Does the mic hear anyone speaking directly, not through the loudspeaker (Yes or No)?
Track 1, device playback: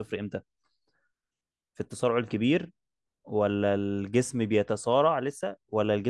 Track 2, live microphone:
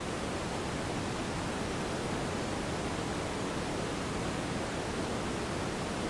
No